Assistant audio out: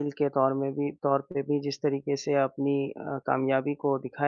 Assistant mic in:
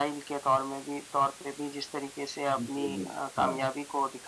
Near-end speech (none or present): present